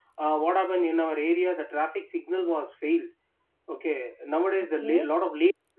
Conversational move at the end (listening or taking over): listening